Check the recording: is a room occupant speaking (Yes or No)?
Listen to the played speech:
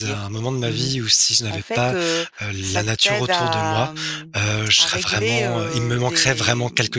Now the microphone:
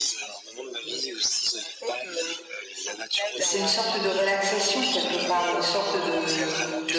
Yes